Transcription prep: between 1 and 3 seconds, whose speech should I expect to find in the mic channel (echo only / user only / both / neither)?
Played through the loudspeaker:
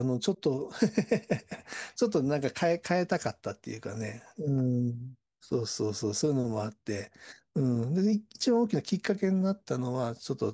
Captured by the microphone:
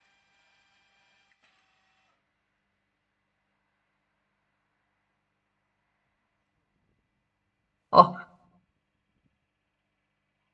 neither